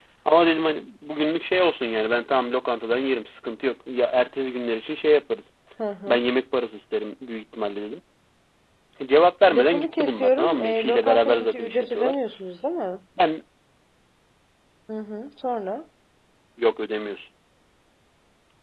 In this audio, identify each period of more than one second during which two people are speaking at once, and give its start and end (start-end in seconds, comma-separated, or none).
9.5-12.2